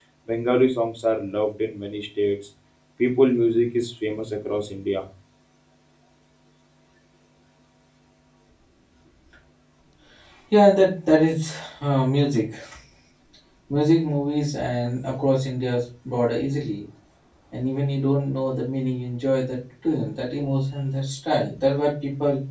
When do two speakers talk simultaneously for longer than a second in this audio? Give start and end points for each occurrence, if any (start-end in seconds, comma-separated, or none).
none